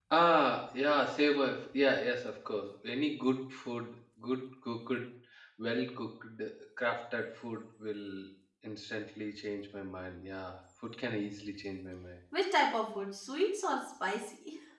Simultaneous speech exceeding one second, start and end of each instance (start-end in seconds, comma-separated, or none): none